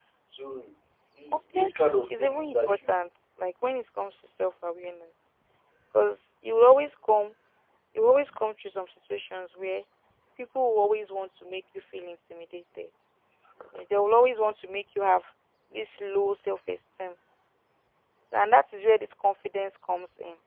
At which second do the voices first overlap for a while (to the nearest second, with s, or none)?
1 s